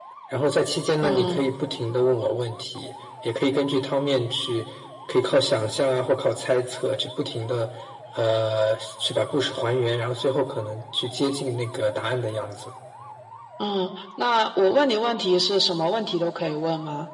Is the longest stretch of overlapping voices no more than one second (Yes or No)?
Yes